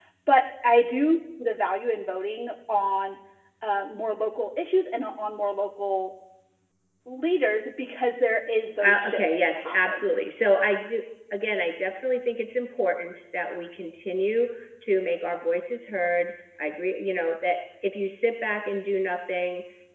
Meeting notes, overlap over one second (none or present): present